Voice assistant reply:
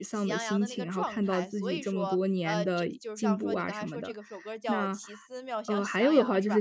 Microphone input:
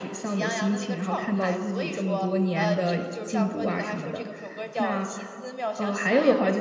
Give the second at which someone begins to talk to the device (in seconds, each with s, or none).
none